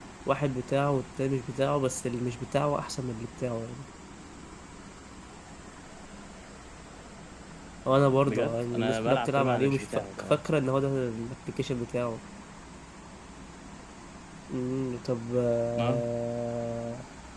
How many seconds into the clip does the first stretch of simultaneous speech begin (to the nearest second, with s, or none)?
8 s